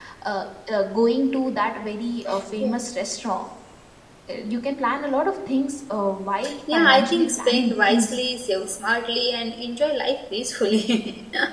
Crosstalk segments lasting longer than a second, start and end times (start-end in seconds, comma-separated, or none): 6.7-8.2